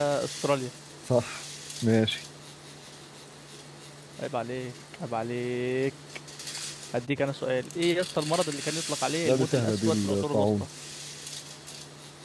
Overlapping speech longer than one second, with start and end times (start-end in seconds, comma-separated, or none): 9.2-10.5